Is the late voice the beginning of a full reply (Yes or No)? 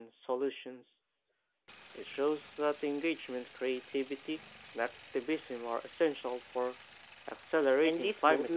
Yes